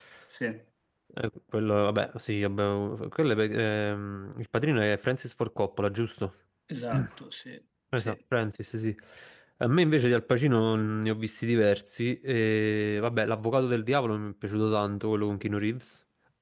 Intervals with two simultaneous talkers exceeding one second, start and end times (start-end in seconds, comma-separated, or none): none